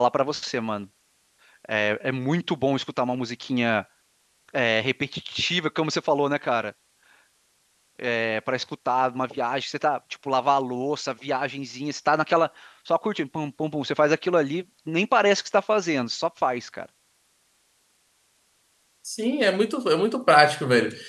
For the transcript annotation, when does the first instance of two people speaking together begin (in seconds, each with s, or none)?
none